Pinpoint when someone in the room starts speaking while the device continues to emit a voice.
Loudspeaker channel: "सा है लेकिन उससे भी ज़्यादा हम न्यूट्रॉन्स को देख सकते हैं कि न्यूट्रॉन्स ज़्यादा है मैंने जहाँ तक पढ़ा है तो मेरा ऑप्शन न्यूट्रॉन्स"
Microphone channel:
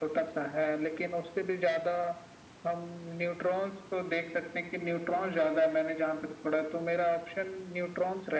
none

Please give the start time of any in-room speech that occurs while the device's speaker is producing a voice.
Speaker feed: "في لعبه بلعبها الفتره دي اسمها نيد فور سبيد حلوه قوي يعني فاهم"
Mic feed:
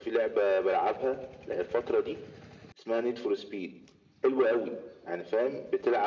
none

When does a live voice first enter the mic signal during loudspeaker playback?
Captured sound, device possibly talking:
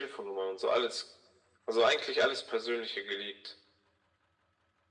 none

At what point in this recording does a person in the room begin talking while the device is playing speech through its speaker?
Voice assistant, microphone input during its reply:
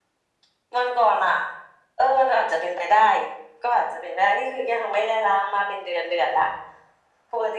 none

